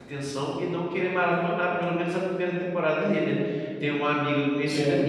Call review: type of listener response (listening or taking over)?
listening